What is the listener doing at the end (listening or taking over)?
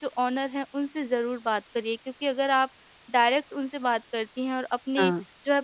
listening